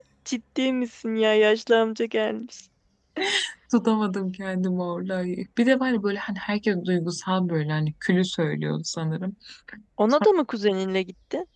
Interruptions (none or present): none